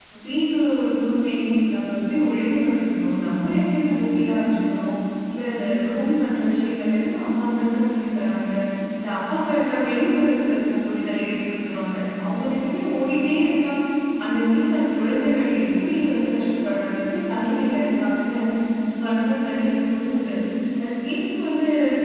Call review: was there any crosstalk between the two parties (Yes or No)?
No